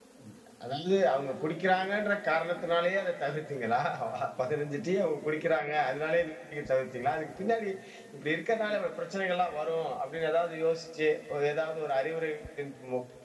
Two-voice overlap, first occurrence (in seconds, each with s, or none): none